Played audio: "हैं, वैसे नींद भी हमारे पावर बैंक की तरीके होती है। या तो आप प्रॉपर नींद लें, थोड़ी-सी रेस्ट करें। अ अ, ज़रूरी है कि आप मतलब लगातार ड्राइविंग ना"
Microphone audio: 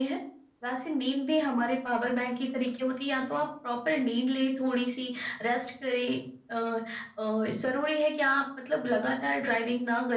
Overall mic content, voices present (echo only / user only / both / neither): echo only